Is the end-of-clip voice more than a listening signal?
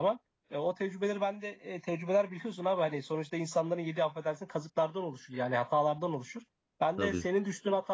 No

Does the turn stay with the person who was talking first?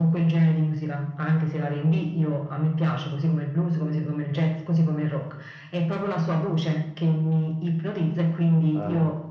Yes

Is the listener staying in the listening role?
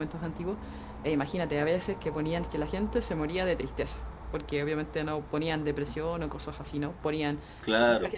Yes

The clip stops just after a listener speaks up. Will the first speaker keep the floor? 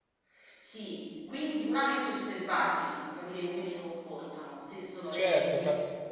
No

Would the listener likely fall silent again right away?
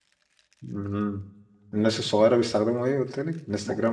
No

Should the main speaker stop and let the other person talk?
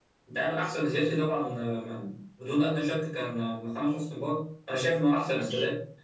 No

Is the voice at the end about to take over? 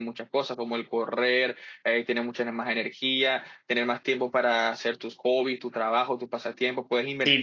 Yes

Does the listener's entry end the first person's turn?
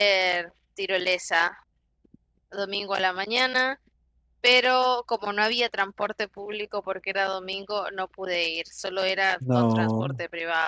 No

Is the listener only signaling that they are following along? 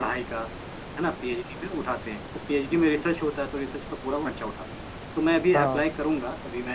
Yes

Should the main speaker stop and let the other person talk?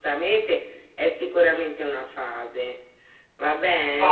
Yes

